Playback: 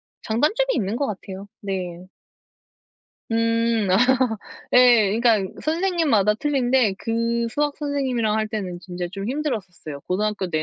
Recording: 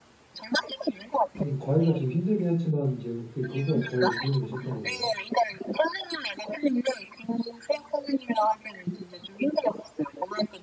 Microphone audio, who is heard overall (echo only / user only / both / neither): both